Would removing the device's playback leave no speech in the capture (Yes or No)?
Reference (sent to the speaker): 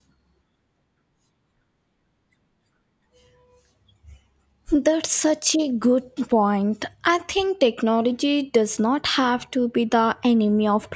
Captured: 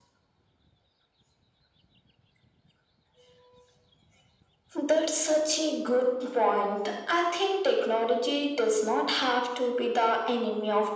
Yes